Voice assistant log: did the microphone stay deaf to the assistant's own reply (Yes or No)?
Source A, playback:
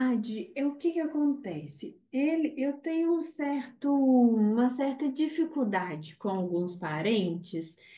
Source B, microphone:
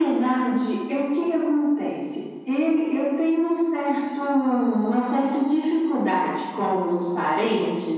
No